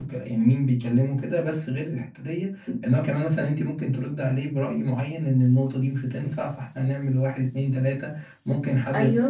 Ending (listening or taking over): listening